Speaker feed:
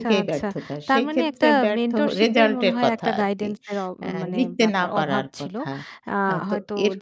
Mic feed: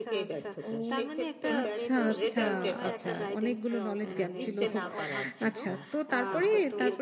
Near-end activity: present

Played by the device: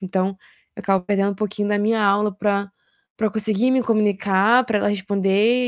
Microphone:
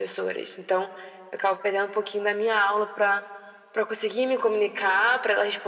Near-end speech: none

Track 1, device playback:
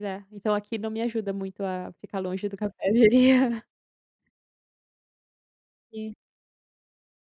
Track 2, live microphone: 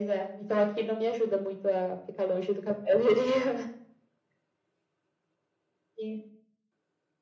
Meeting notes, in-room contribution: none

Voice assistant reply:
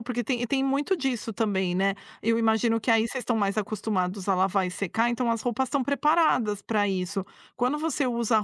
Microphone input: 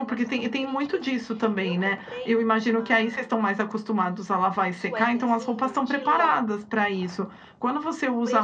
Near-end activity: present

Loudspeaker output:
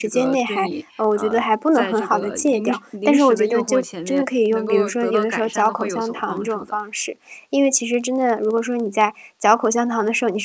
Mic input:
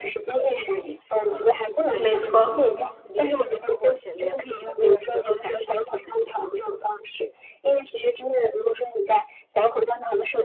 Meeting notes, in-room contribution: present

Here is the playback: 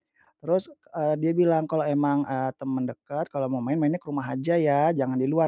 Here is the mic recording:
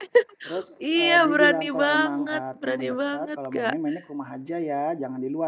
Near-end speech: present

